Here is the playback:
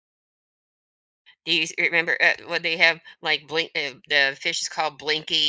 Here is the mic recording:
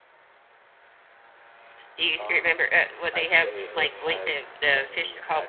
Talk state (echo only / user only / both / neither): both